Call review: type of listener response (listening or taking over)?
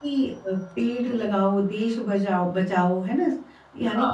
listening